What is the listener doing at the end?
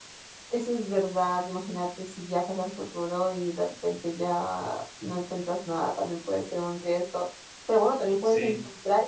listening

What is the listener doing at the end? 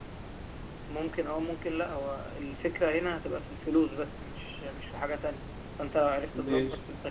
listening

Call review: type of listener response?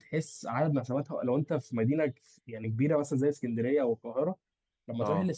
listening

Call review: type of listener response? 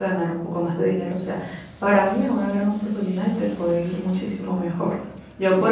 taking over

